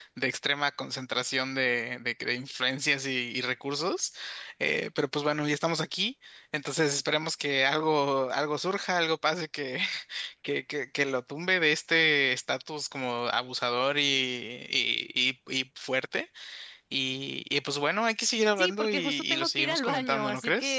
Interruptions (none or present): present